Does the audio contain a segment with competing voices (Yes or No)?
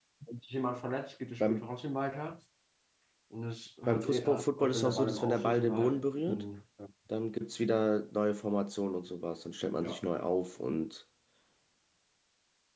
Yes